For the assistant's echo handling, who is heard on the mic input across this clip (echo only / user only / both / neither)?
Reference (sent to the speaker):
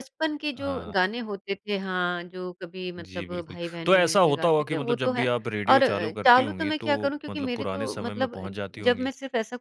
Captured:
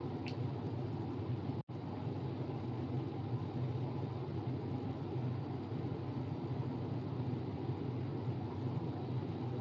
neither